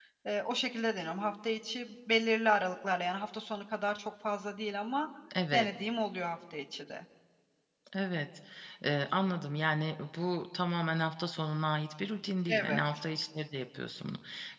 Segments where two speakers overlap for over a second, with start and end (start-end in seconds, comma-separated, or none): none